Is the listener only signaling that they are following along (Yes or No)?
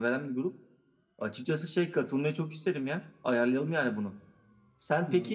Yes